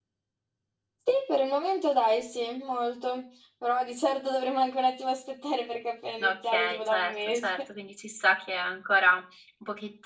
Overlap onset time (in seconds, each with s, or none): 6.2 s